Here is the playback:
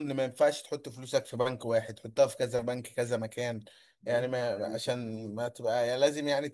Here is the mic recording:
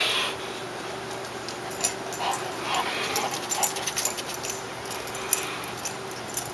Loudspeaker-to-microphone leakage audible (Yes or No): No